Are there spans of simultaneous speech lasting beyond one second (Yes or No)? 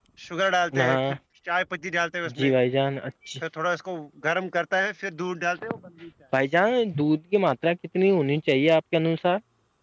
No